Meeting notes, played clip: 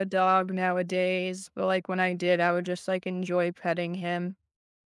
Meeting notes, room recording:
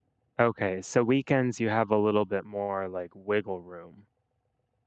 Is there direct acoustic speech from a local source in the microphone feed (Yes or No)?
Yes